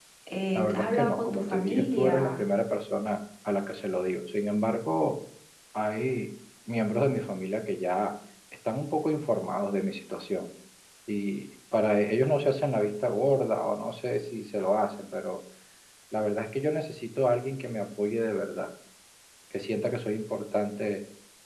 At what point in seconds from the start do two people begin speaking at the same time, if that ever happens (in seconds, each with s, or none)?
0.5 s